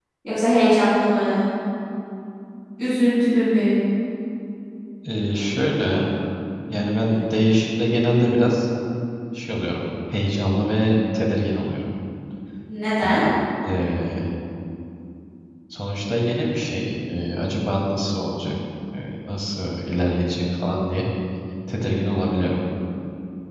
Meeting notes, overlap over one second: none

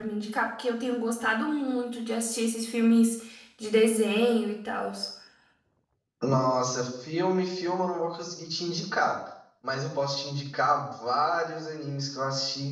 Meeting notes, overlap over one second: none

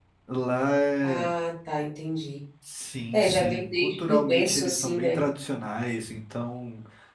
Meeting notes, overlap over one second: present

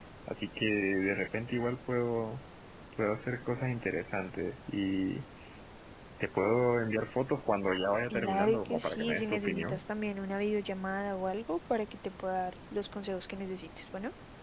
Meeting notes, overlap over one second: present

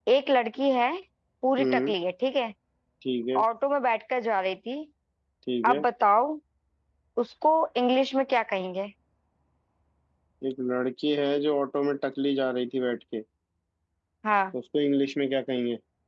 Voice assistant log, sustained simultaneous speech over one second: none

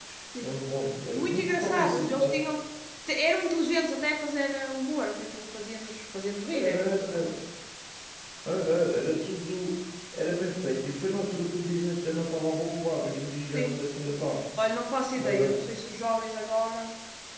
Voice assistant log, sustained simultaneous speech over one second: present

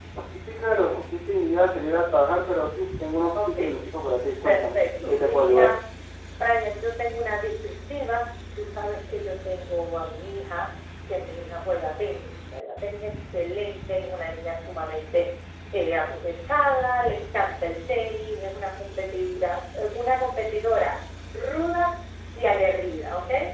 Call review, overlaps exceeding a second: present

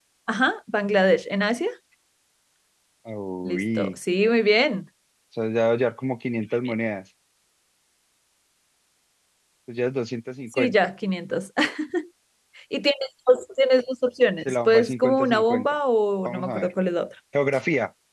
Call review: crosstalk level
present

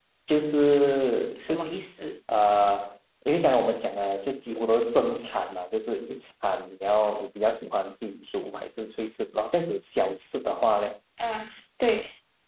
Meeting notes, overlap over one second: none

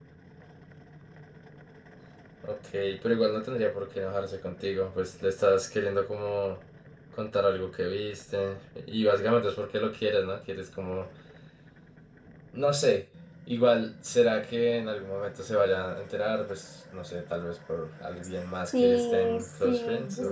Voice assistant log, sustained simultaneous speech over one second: present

